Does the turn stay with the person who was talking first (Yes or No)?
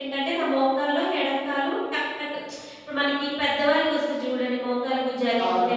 No